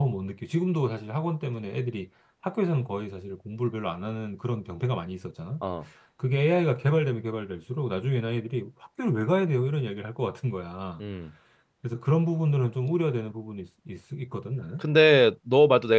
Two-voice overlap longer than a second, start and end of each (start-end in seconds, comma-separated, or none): none